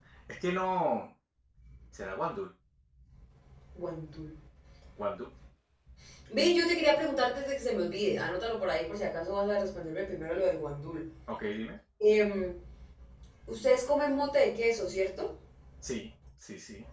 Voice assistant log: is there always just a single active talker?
Yes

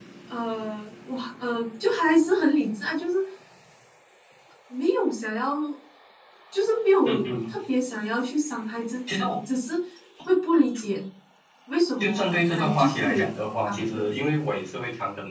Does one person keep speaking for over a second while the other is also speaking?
Yes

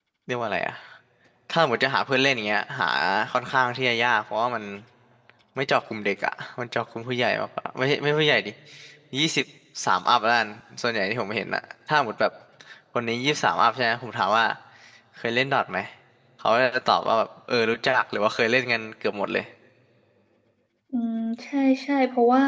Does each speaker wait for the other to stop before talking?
Yes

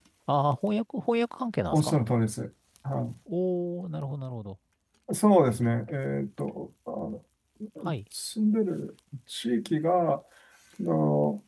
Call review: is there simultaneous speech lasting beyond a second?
No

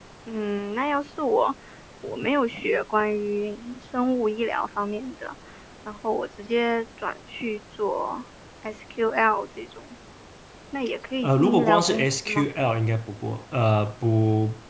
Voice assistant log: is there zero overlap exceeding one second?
No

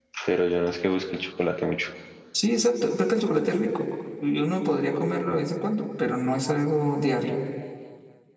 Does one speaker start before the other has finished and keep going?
No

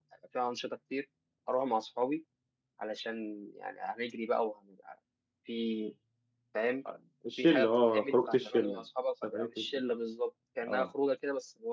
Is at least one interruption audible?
Yes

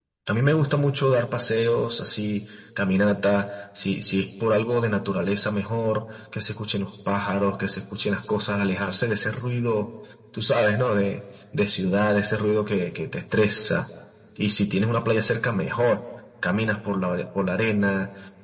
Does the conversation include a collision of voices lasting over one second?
No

